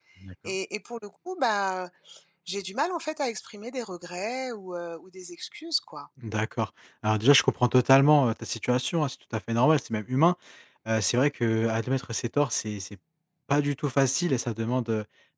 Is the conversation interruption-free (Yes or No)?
Yes